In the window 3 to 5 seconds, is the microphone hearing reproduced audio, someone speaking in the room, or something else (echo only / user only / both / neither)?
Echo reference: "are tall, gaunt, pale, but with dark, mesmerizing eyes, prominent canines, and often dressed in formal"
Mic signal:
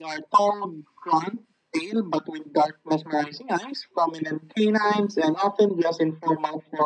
echo only